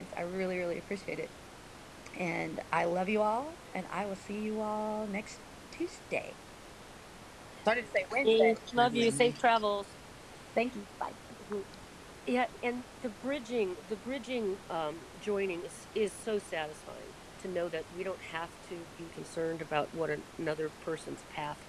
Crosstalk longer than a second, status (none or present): present